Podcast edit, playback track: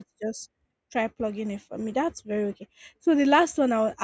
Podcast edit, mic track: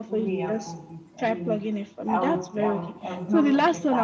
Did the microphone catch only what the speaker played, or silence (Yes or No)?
No